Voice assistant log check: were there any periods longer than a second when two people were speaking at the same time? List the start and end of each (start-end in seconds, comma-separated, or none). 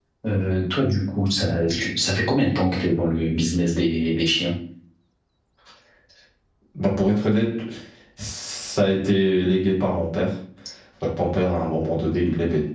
none